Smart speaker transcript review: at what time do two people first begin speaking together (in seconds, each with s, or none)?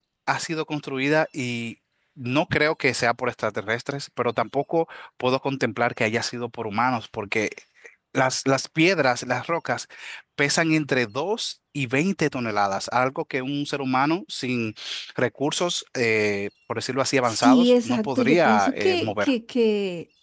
17.2 s